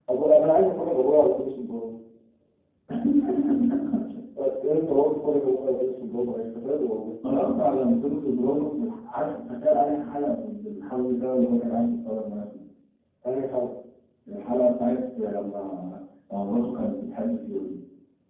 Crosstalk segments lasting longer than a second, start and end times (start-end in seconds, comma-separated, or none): none